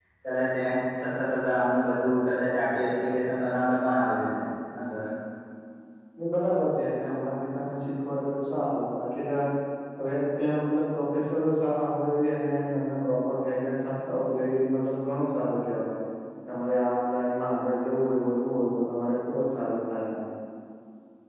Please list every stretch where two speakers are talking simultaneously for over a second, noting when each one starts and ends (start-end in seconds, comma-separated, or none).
none